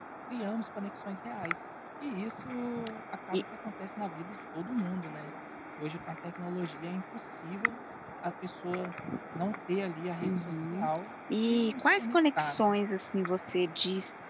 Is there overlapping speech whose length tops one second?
Yes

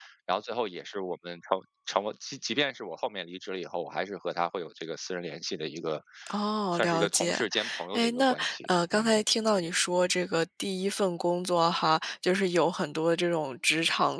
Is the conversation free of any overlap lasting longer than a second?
No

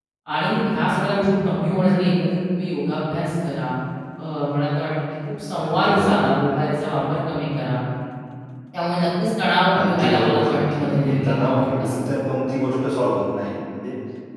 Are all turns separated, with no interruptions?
No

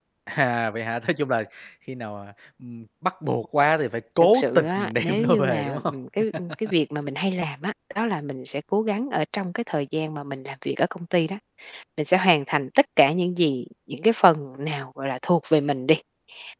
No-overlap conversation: No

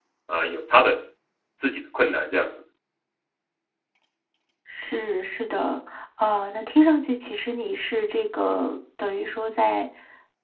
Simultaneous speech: No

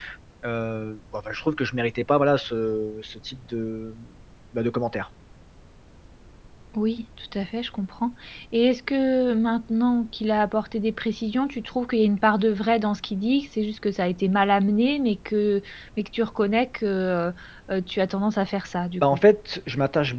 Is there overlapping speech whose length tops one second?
No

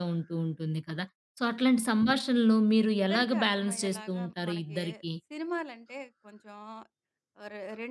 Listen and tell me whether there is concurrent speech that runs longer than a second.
Yes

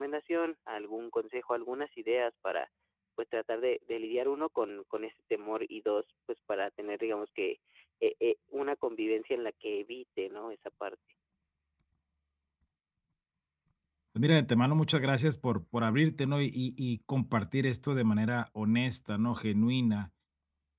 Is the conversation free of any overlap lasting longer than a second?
Yes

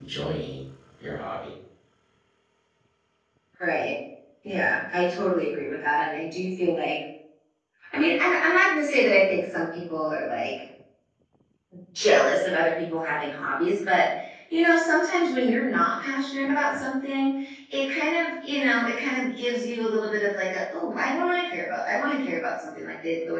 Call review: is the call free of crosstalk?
Yes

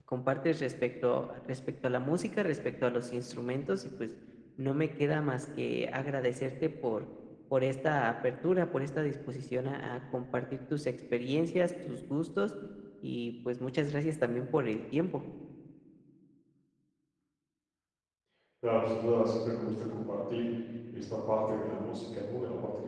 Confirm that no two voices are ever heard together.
Yes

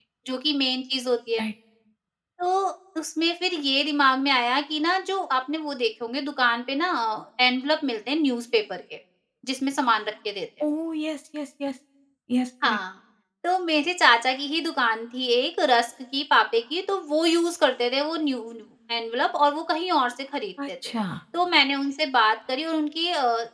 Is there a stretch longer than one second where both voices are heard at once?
No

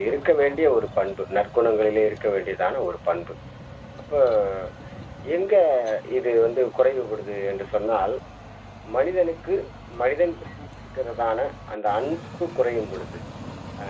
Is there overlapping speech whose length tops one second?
No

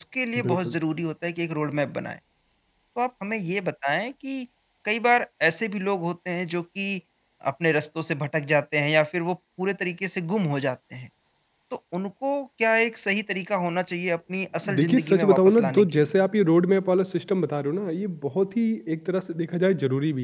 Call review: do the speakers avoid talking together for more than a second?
No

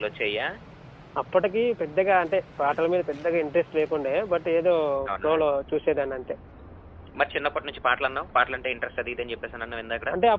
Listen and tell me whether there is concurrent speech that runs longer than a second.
No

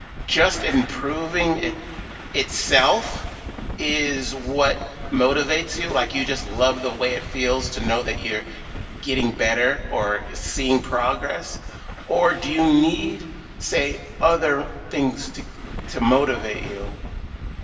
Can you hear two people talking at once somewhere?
No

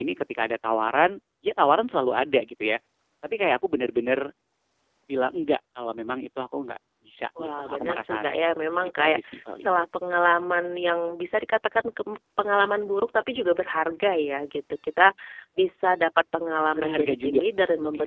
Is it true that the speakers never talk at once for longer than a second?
No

